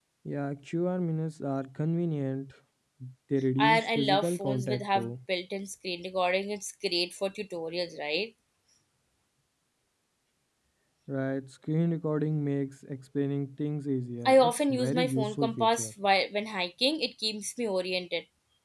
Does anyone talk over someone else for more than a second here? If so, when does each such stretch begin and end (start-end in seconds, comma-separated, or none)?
3.6-5.1, 14.2-15.9